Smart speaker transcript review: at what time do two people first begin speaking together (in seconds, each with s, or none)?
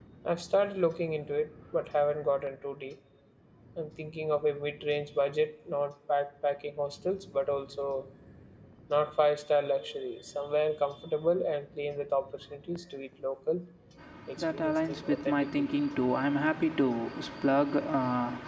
14.4 s